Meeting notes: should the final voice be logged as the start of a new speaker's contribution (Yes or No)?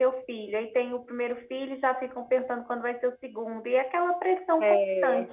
Yes